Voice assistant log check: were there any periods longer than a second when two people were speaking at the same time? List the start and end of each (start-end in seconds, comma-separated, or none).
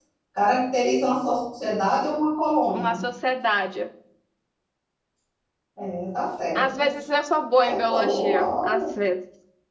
7.6-8.8